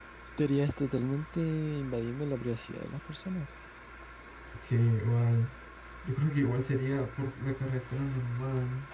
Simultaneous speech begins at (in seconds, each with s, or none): none